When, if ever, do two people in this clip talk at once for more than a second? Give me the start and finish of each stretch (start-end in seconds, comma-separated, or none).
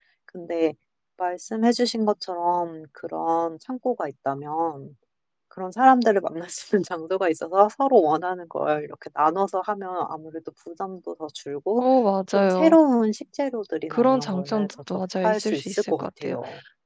13.9-16.4